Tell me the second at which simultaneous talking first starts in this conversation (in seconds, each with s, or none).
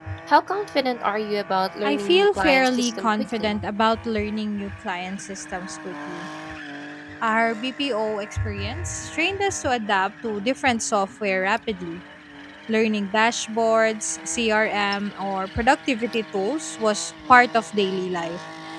1.8 s